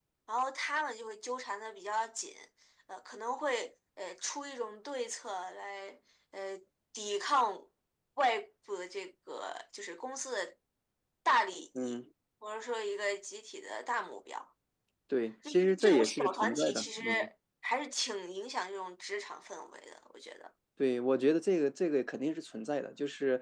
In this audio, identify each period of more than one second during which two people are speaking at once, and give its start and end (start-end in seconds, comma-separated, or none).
15.5-17.0